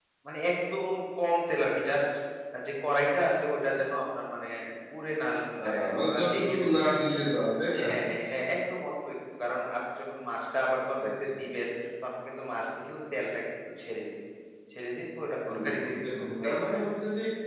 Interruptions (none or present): present